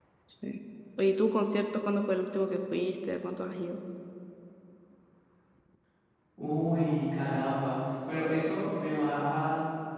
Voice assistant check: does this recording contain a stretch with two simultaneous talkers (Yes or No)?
No